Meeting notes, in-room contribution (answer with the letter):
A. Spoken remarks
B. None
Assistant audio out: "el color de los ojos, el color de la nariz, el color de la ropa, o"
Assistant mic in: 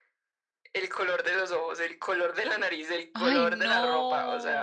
A